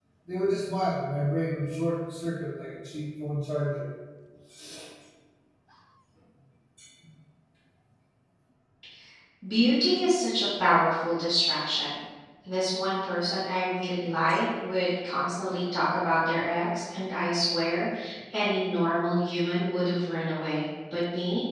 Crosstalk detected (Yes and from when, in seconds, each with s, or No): No